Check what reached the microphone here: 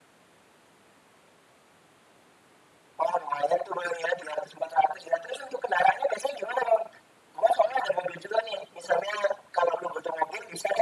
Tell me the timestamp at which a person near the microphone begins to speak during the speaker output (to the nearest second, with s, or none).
none